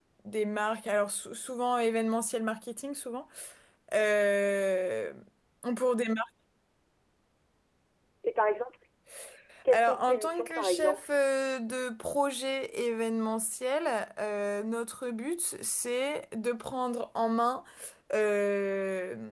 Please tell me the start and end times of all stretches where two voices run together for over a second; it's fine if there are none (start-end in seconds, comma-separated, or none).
9.7-11.0